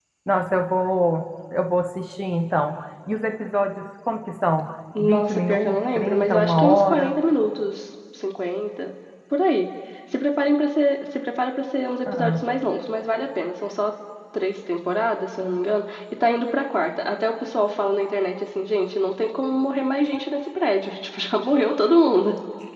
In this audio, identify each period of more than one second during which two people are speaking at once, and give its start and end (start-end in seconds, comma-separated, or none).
5.0-7.1